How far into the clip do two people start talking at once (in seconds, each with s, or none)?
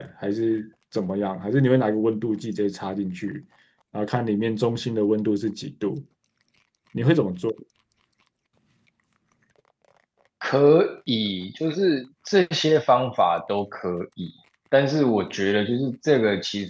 none